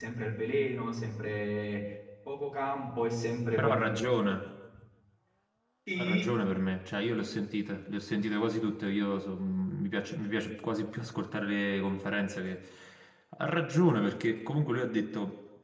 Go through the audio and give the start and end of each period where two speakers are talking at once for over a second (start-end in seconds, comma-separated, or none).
none